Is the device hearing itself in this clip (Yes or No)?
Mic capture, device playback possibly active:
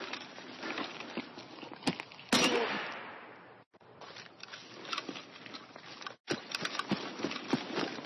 No